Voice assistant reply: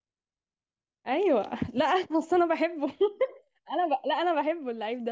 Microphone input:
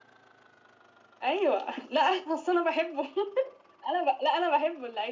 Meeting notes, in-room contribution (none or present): none